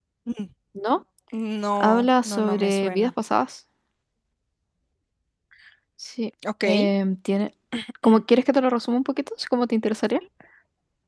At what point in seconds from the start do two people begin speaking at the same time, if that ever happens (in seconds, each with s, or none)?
1.8 s